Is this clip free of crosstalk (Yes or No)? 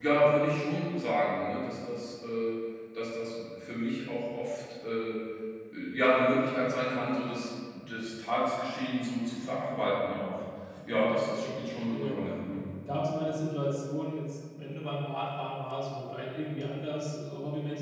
No